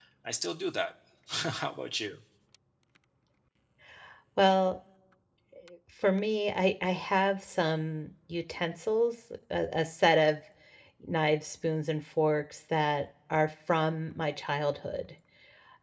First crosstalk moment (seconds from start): none

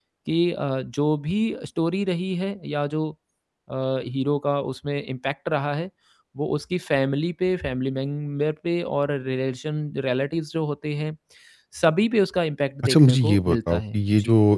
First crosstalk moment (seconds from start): 13 s

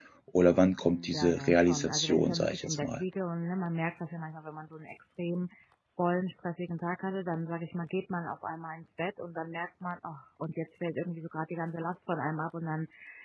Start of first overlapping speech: 1 s

